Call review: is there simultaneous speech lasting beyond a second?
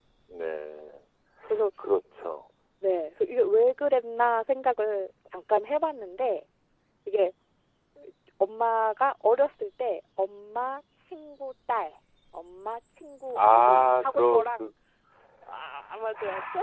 Yes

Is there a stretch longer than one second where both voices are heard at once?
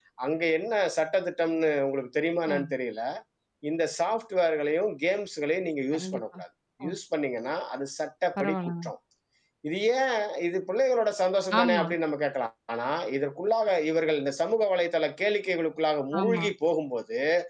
No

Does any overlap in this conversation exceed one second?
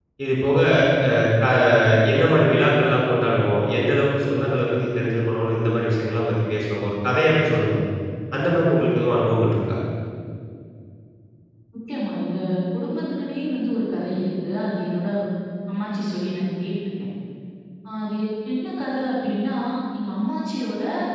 No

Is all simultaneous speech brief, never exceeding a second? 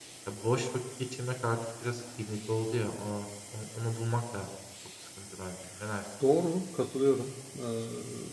Yes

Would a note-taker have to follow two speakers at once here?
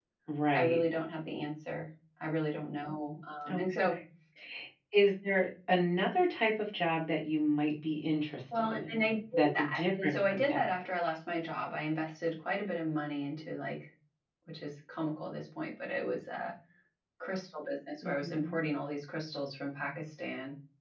Yes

